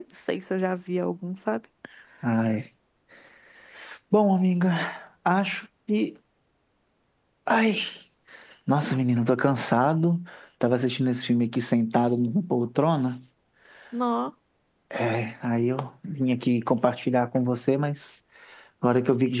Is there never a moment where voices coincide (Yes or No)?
Yes